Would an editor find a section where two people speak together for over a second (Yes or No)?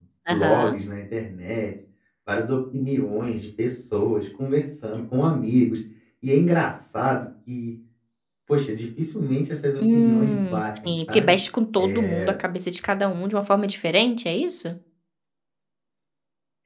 Yes